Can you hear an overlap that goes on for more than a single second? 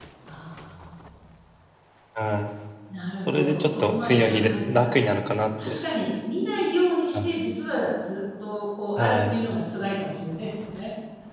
Yes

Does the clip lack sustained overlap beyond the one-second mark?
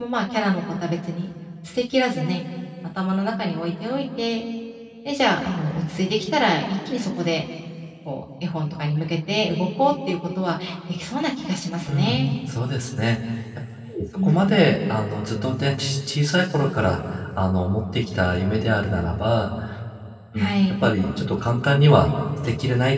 Yes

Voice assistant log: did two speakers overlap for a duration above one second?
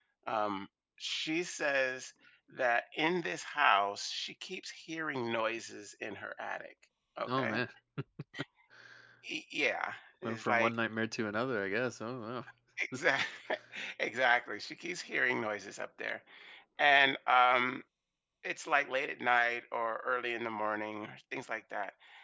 No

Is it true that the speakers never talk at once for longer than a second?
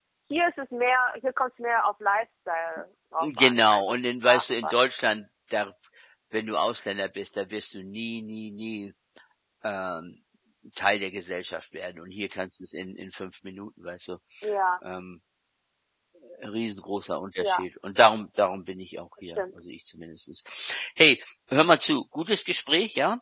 No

